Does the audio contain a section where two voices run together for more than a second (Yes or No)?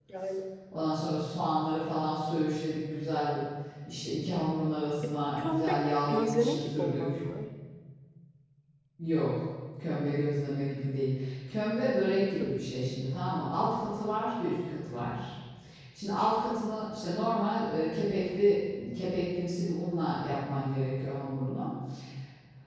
Yes